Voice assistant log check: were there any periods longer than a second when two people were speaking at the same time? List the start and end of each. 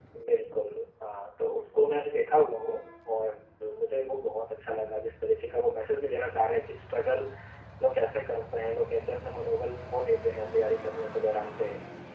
none

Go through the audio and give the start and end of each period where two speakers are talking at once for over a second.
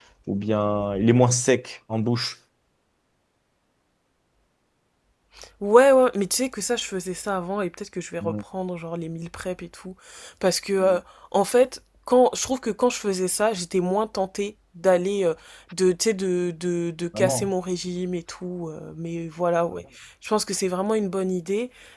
none

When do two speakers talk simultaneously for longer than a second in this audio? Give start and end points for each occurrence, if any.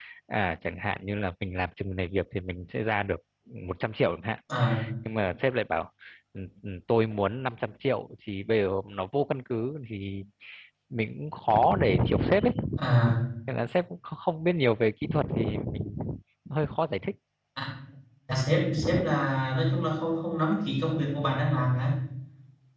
none

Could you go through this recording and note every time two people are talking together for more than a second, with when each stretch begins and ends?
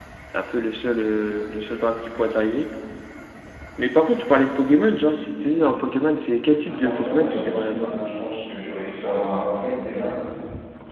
6.6-7.9

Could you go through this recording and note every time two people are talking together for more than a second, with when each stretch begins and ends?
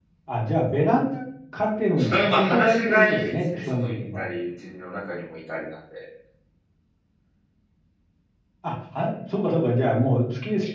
2.0-4.2

